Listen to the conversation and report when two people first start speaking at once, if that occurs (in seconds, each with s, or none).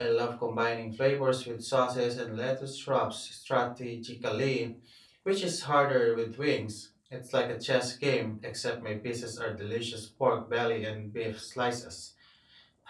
none